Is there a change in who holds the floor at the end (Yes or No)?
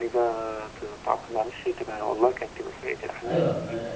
Yes